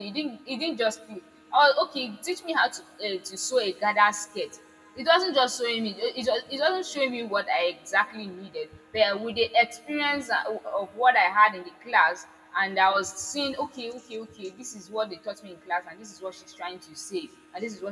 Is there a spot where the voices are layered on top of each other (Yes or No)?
No